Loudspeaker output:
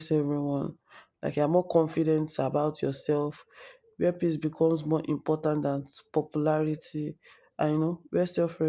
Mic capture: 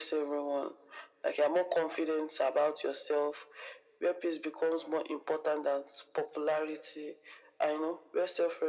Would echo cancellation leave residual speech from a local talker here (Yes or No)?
No